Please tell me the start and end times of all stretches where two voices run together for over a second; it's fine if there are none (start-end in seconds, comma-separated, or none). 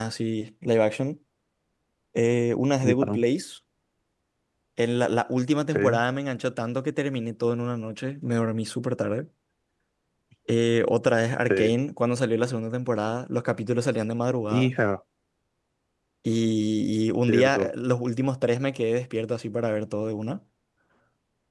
none